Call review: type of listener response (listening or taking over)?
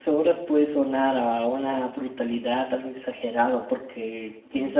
listening